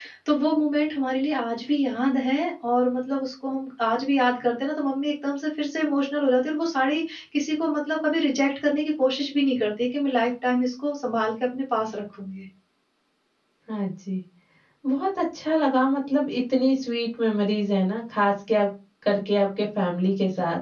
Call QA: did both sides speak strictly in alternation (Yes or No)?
Yes